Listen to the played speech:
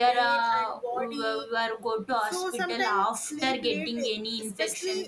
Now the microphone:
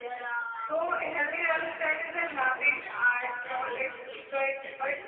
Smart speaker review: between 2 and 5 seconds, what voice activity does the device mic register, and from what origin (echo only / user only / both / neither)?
both